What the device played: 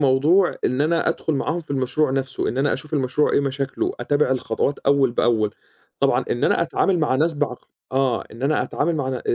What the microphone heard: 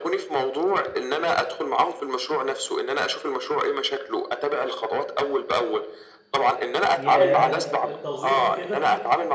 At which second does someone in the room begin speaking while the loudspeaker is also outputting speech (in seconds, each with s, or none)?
7.0 s